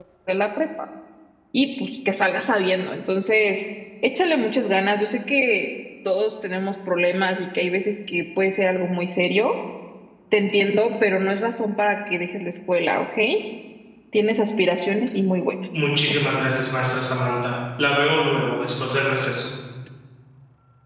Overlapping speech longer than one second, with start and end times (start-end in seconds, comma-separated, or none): none